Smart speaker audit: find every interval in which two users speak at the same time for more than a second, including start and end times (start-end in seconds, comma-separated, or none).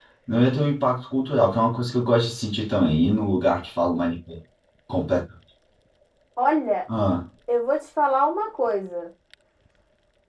none